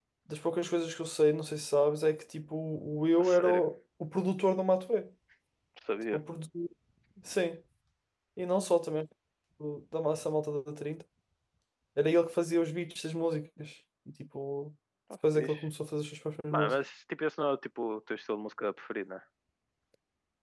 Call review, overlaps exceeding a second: none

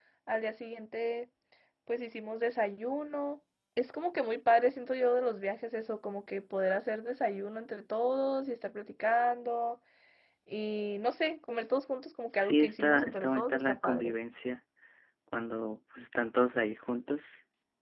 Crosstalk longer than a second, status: present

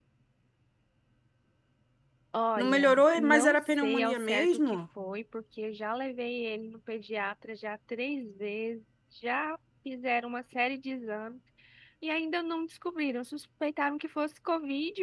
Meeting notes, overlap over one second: present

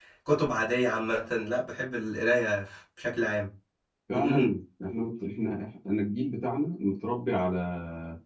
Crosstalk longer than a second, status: none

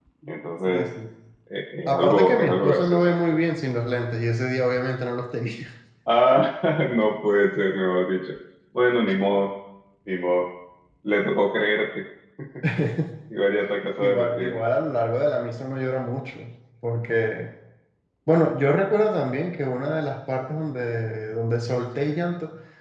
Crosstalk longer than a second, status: present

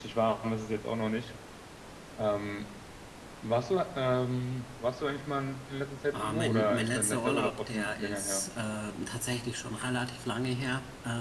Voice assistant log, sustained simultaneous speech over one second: present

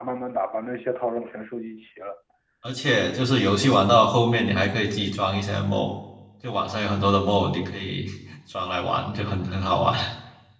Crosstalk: none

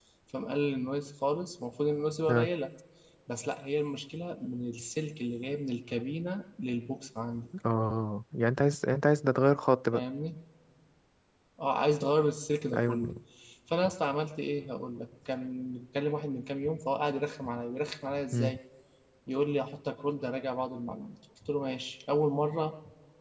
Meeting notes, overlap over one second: none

